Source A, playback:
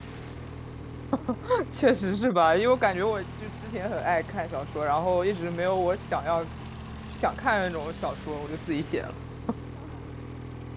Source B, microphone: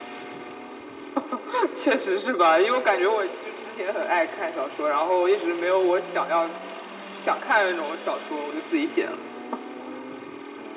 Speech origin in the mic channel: echo only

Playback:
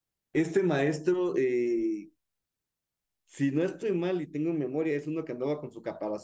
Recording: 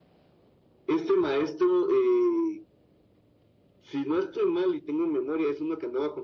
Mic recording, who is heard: echo only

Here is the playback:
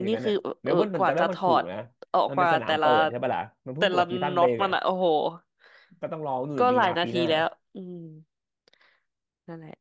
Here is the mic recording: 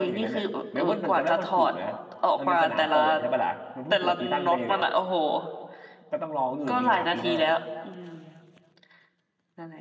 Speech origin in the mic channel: echo only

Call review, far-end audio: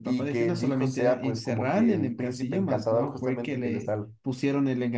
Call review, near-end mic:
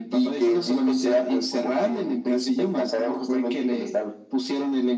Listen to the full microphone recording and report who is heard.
echo only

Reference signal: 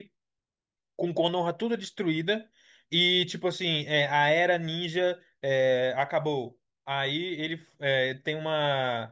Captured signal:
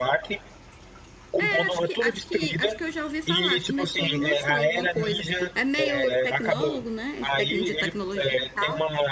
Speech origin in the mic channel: both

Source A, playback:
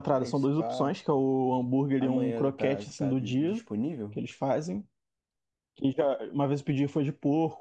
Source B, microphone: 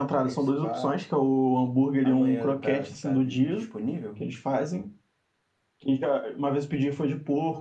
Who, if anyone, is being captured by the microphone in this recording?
echo only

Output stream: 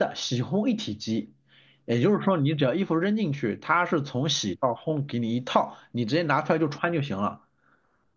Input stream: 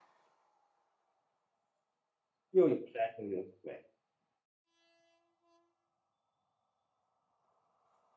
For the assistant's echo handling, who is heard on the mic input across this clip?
user only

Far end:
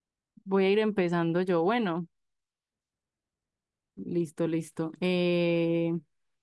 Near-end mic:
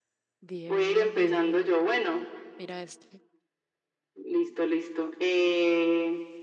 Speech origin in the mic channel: both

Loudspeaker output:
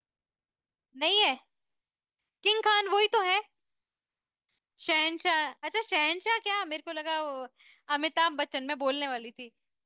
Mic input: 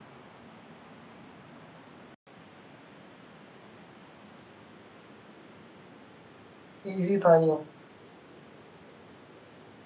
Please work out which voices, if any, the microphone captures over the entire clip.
user only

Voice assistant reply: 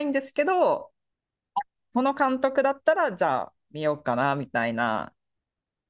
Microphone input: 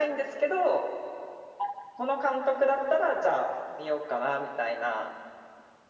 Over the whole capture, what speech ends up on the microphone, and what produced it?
echo only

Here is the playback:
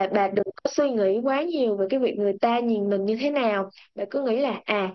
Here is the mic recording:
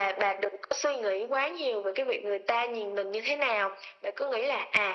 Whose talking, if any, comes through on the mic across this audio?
echo only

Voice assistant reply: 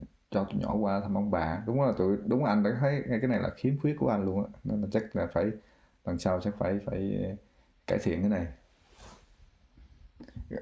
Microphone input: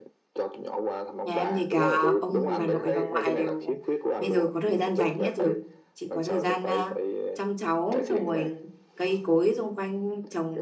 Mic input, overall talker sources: both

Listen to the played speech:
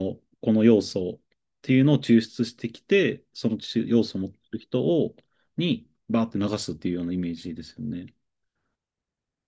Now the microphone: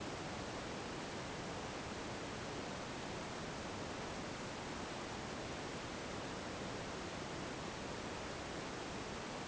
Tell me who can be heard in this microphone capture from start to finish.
neither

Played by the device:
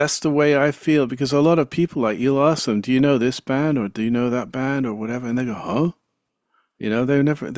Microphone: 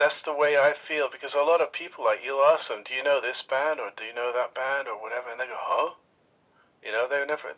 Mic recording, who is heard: echo only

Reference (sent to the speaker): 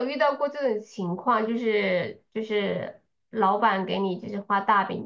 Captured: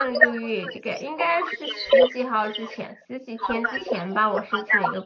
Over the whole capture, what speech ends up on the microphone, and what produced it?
both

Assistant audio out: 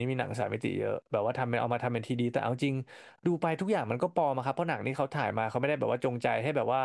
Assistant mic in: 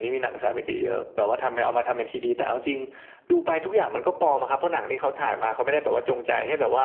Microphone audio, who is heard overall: echo only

